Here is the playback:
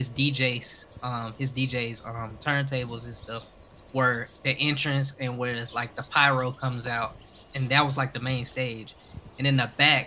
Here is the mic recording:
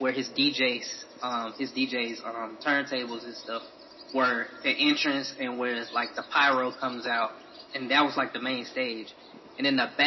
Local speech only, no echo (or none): none